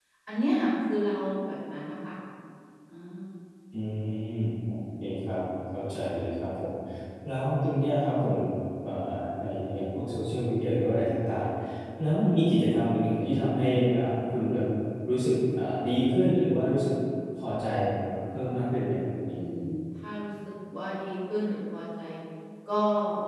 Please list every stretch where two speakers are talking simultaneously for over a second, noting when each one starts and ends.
none

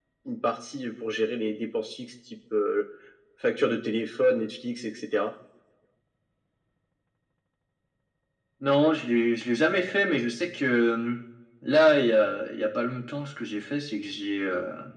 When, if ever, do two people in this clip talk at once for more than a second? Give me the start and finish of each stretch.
none

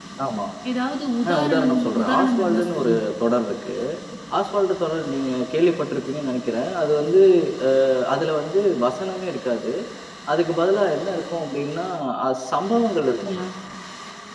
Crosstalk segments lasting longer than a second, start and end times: 1.3-3.0

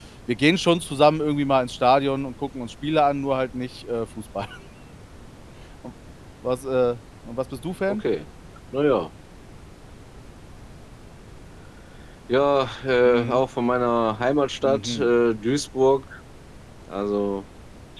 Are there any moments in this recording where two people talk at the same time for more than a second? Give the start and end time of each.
none

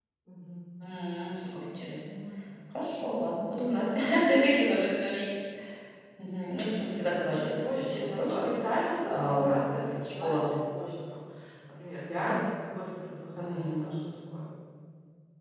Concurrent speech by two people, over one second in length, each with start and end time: 6.8-8.5, 9.1-10.4

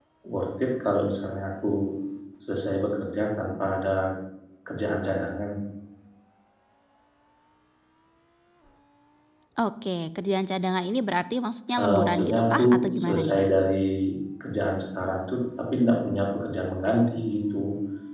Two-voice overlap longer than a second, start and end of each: 11.8-13.5

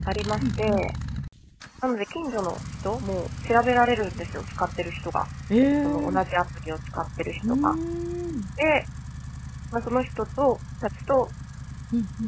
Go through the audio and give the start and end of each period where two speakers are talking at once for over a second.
none

